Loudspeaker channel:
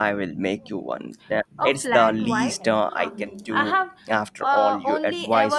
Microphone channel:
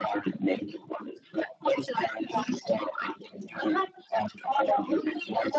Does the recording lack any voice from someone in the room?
Yes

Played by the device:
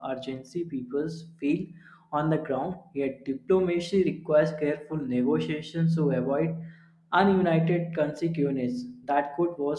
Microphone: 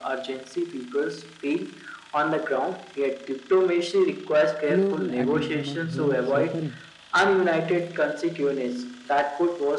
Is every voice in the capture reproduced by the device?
No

